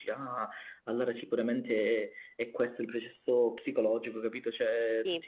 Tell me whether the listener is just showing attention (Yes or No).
Yes